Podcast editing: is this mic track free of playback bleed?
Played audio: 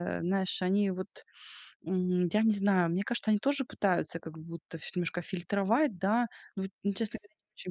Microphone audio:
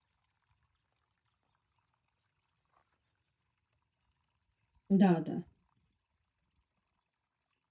Yes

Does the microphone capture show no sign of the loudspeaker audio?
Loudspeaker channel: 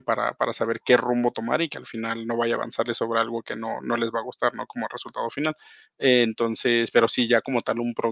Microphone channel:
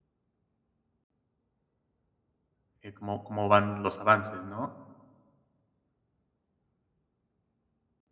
Yes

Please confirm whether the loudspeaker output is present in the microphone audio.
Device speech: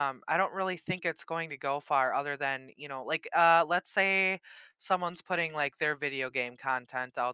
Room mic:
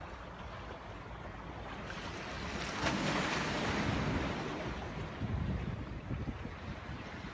No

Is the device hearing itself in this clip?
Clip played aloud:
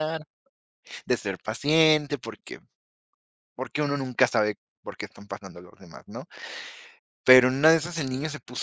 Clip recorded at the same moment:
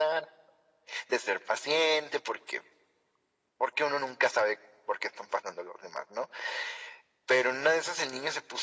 Yes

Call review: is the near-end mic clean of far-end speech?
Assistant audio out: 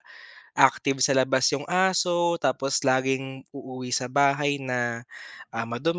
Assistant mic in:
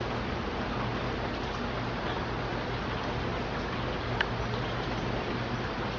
Yes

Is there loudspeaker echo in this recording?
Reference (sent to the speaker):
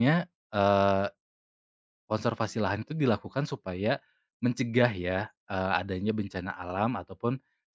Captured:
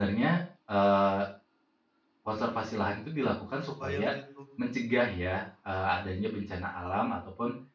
Yes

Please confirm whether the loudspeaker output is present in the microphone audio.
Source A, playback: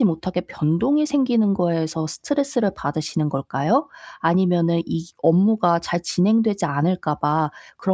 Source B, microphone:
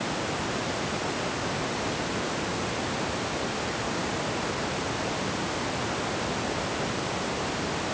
No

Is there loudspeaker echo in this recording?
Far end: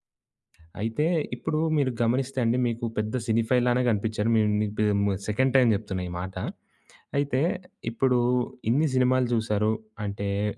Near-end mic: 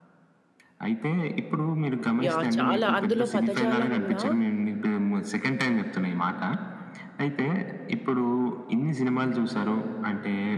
Yes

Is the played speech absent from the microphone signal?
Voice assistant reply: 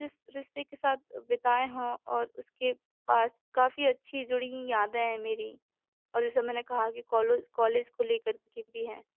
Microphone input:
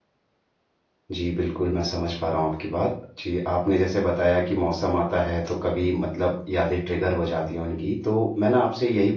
Yes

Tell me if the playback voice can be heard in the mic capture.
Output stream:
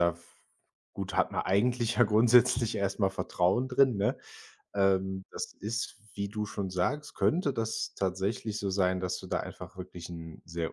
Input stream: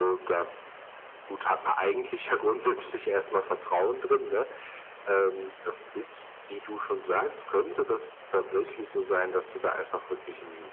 Yes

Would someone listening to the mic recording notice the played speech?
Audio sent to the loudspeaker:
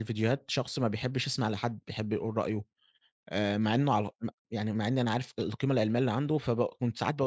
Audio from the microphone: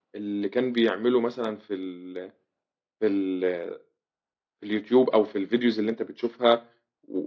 No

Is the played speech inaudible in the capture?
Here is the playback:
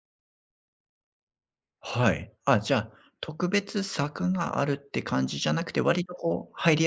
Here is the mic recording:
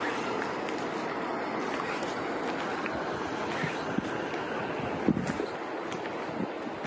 Yes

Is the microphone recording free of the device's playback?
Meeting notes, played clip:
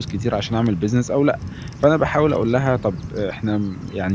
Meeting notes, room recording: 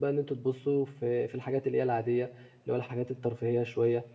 Yes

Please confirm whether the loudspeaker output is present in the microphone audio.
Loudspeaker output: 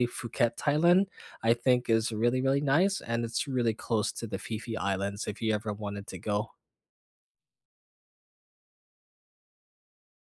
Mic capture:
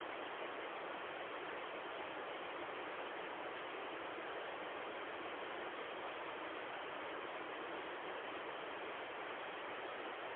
No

